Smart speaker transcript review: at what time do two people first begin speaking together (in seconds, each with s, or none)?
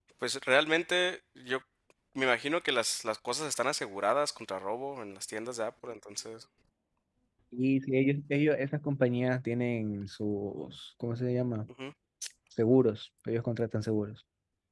none